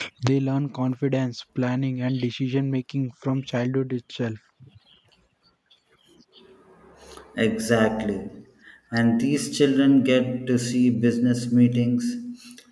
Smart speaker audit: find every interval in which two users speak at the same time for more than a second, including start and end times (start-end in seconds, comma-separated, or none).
none